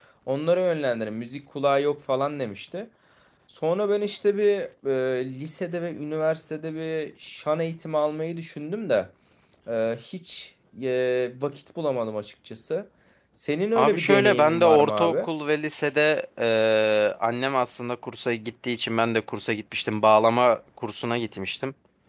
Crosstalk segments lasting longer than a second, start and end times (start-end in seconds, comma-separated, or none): 13.8-15.1